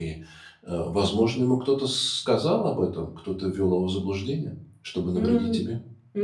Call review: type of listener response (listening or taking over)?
taking over